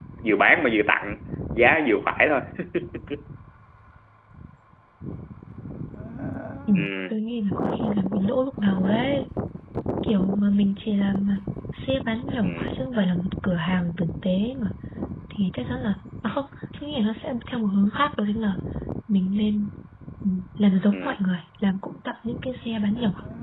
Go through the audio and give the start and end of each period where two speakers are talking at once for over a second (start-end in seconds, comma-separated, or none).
none